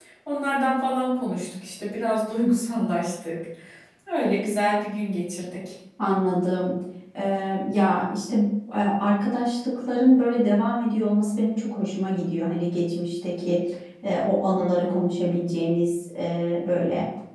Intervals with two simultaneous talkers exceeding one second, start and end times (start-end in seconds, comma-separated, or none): none